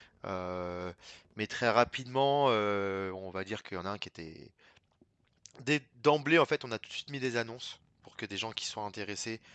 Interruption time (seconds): none

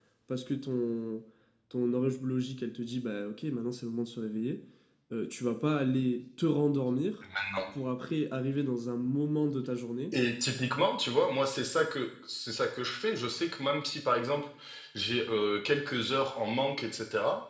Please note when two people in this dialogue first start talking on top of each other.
none

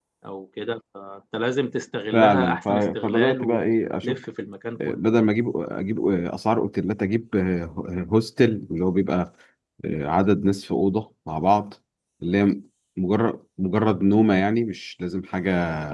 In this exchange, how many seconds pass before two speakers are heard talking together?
2 s

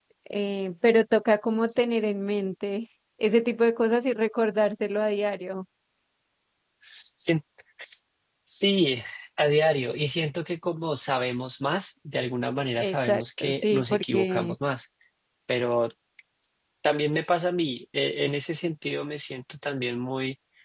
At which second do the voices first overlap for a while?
13 s

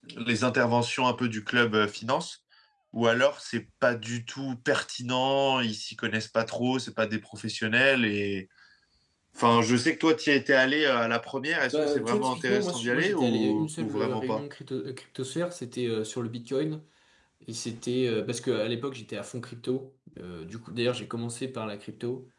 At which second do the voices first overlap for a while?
12 s

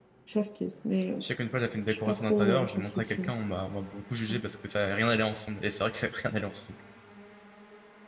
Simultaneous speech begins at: 2 s

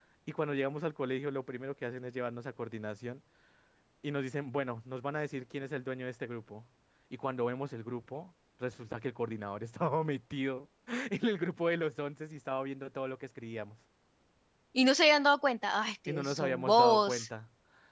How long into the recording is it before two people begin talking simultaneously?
16 s

